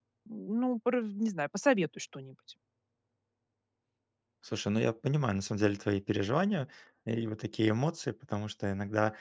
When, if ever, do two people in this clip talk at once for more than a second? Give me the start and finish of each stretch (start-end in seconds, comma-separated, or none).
none